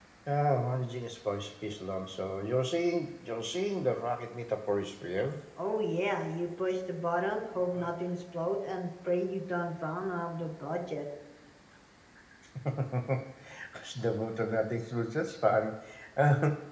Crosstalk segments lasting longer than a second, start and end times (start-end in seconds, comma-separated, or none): none